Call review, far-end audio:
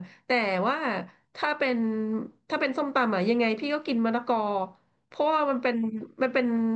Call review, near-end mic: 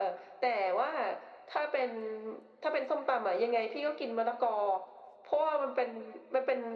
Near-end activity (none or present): none